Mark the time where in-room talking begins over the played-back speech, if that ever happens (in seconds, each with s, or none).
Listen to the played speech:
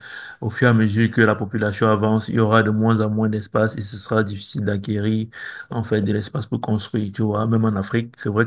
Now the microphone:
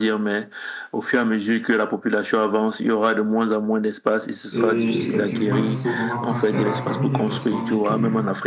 4.5 s